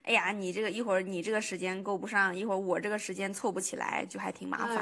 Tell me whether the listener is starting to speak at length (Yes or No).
Yes